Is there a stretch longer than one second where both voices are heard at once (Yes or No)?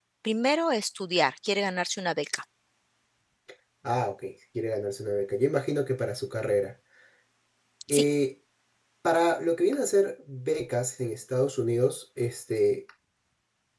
No